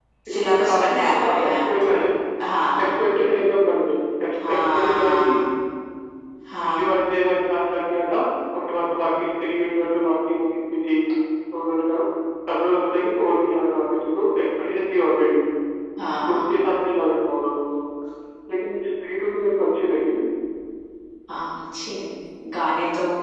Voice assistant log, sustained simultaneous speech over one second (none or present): present